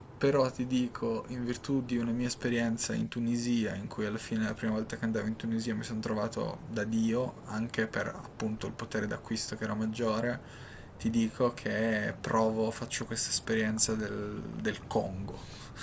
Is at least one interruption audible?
No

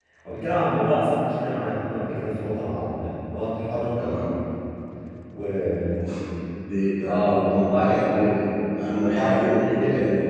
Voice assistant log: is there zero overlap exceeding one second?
No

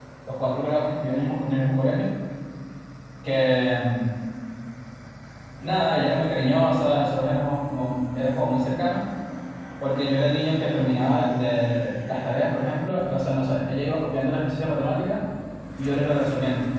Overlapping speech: No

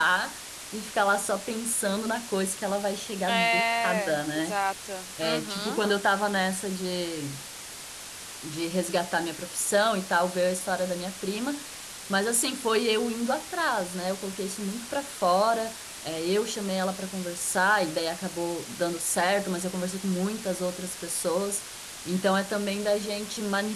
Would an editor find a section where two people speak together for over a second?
Yes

